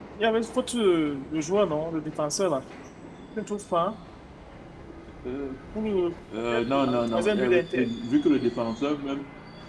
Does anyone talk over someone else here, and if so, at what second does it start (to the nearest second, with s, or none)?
7 s